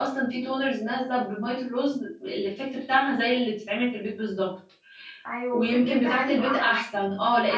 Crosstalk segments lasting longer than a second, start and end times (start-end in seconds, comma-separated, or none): 5.5-6.8